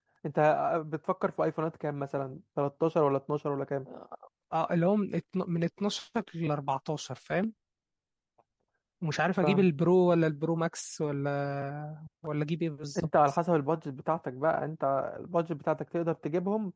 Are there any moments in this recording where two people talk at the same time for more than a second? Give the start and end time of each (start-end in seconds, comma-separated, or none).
none